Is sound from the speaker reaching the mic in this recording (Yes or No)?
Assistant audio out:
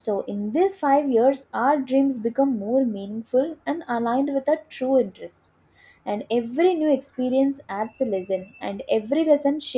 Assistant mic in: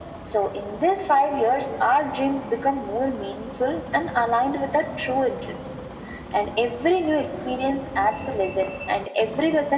Yes